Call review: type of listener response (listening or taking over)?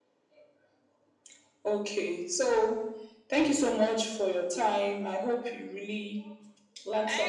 taking over